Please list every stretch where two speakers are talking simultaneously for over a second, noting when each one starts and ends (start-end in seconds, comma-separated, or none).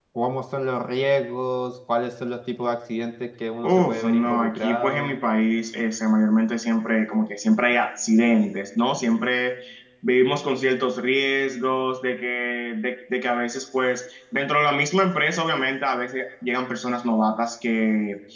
3.6-5.2